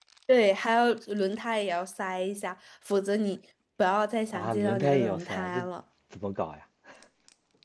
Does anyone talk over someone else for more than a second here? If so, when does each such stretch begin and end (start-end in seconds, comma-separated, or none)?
4.3-5.7